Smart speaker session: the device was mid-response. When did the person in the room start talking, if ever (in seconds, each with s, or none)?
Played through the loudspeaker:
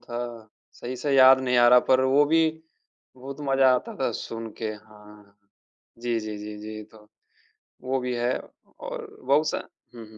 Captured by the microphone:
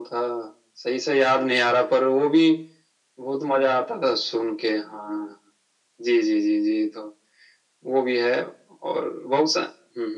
none